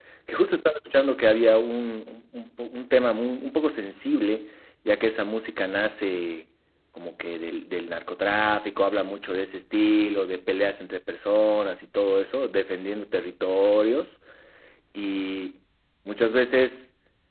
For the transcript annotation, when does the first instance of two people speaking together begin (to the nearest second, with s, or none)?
none